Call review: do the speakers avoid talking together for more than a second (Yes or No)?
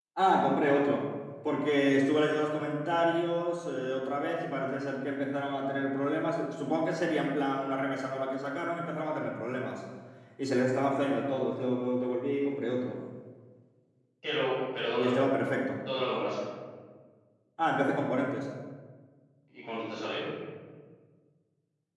Yes